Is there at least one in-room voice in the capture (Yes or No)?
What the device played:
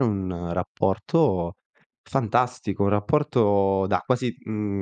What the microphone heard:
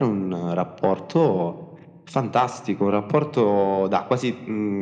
No